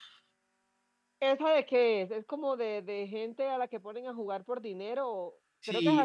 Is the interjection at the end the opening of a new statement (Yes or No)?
Yes